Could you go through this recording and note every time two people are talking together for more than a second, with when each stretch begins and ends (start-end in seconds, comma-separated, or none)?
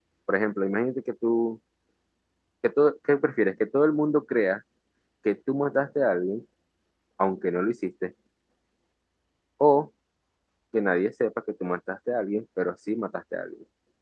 none